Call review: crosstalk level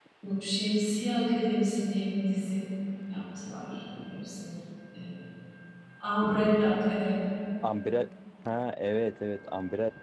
none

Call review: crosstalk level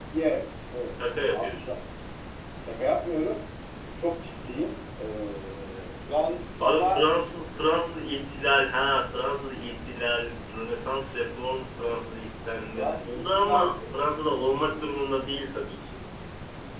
present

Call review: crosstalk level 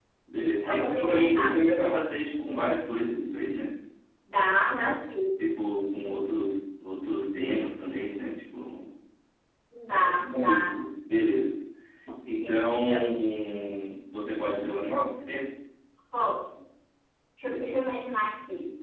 present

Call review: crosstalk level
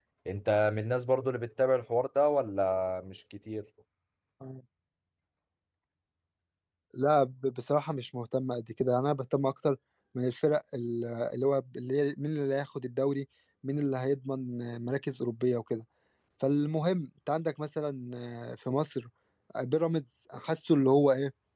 none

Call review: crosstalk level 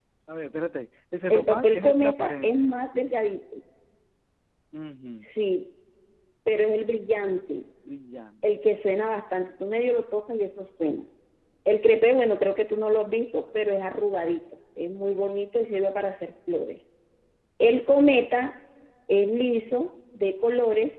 present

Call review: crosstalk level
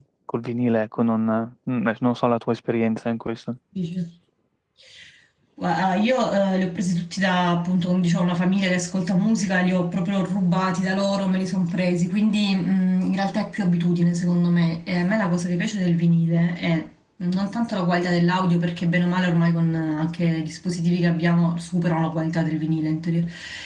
none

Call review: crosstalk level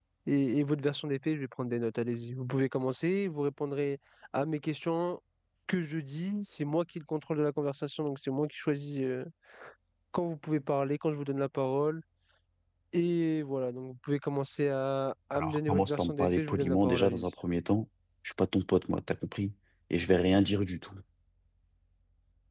present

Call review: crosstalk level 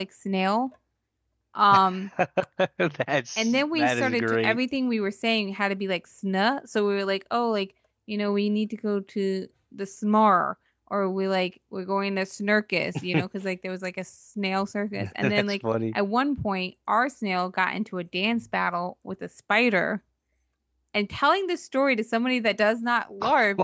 present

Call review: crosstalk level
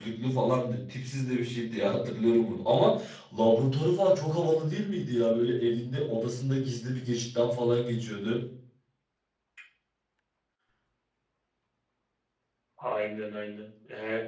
none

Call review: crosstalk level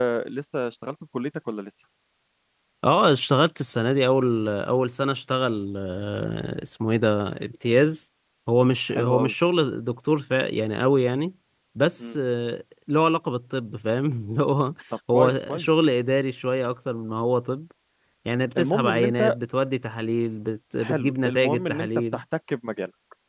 present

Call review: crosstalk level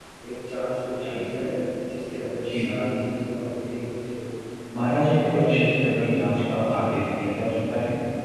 present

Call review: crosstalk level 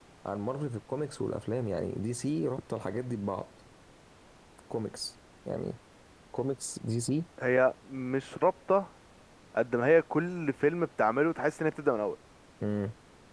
none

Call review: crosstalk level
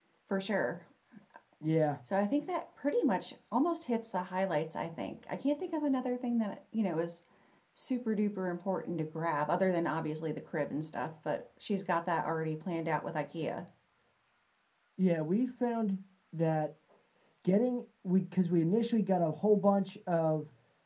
none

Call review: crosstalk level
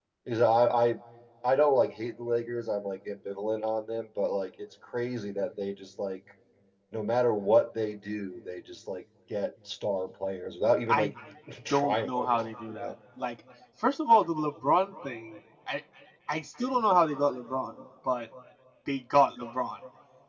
present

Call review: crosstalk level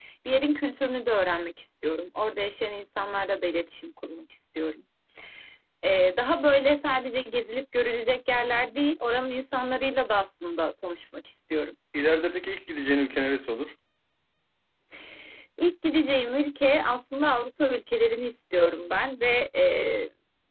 none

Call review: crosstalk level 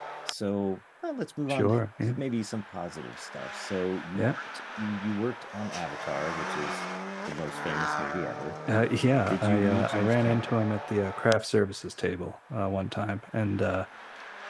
present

